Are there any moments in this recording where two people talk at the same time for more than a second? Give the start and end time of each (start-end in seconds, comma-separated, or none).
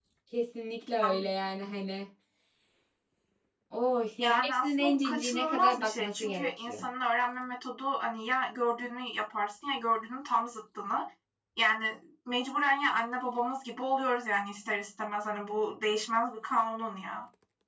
4.2-6.8